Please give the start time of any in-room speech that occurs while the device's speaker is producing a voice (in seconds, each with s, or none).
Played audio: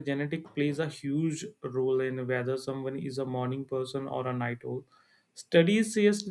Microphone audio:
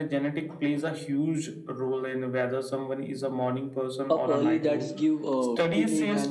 4.1 s